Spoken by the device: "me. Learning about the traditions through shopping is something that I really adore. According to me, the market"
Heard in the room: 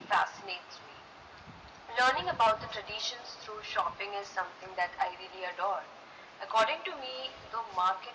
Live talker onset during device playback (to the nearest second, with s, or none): none